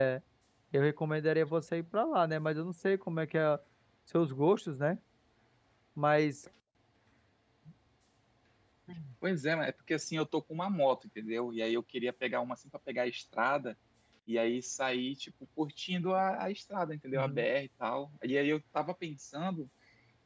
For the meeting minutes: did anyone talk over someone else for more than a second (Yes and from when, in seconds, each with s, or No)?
No